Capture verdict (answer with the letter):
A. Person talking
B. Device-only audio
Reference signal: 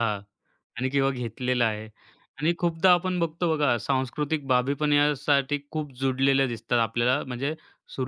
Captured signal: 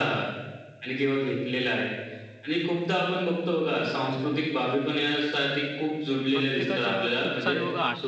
A